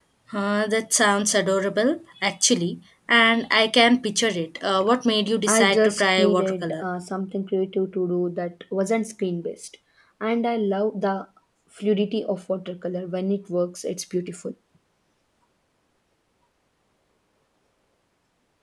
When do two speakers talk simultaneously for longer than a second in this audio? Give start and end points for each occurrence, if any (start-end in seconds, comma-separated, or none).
5.5-6.8